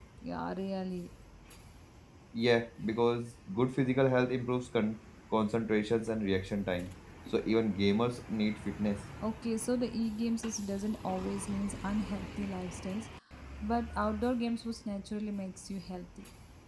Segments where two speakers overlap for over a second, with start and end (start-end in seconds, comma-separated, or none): none